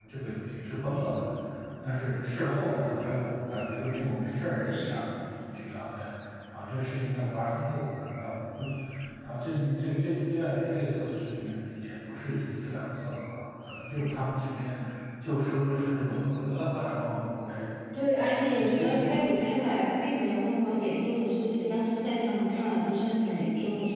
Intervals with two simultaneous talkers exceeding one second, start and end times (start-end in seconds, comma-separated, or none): 18.0-19.5